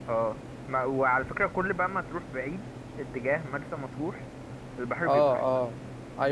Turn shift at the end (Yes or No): Yes